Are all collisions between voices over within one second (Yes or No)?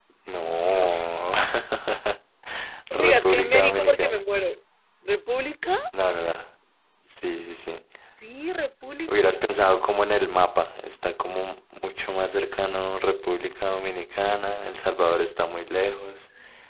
No